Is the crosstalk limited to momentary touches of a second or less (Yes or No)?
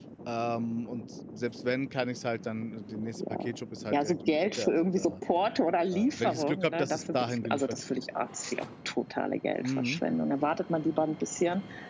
No